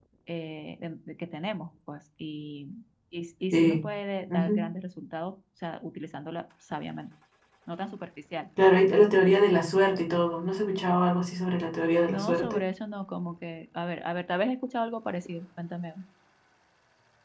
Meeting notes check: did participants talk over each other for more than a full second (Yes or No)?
No